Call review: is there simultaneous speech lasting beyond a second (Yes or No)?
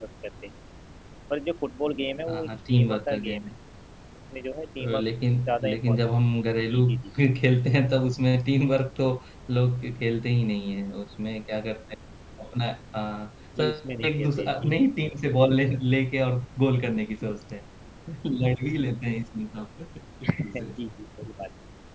Yes